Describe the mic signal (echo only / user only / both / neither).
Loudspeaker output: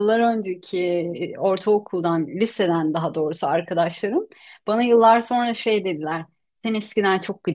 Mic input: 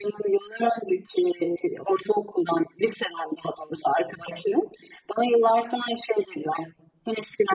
echo only